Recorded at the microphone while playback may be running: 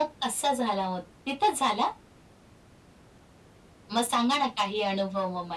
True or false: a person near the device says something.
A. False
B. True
A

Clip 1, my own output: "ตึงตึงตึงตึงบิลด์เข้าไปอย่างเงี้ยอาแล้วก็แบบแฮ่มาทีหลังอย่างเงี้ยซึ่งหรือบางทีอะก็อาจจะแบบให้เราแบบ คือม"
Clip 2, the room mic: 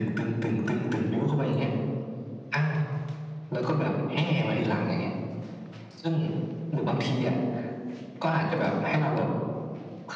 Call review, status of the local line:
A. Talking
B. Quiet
B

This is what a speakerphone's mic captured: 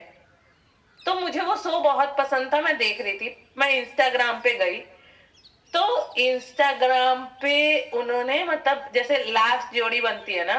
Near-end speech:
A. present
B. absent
B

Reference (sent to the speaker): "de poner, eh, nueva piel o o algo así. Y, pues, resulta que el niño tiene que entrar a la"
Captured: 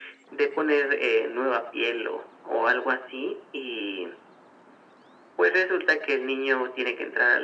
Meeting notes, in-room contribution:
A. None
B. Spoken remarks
A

